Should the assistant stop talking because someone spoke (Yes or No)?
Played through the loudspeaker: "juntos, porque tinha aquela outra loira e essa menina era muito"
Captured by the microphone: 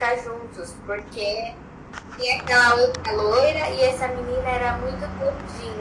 No